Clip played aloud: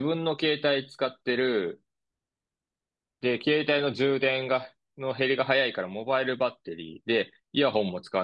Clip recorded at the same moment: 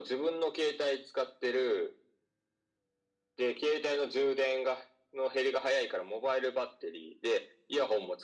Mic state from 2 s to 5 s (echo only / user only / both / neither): echo only